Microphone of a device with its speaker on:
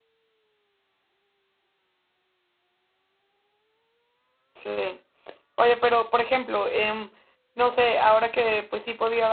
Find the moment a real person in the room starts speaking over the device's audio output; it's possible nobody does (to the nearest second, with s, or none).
5 s